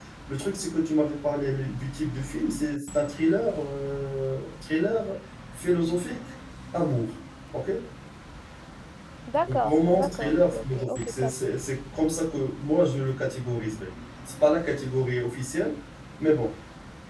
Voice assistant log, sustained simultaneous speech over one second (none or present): present